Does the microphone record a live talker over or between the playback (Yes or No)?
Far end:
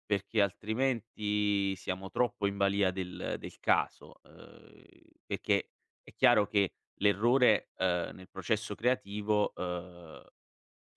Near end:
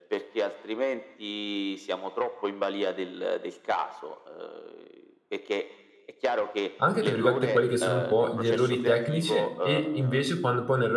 Yes